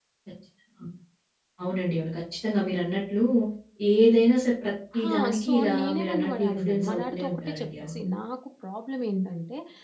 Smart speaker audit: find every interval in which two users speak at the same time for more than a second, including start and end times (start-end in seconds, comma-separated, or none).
5.1-8.0